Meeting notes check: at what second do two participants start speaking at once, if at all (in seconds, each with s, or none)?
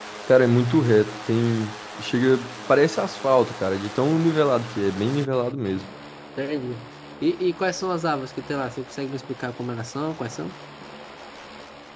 none